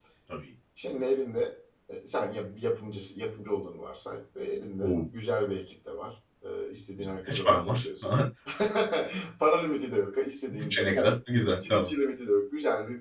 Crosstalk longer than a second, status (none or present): present